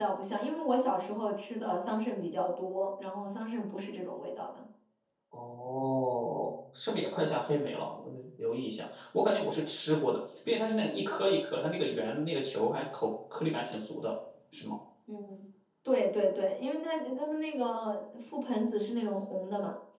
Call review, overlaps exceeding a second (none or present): none